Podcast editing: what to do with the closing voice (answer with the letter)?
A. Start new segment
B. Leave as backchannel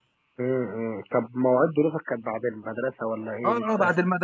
A